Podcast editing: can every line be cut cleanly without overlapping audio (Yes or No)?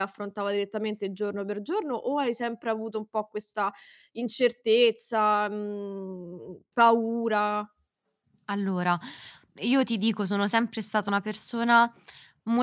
Yes